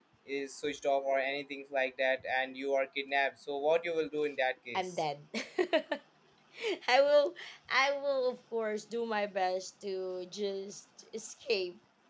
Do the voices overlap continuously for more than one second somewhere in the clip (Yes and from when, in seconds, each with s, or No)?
No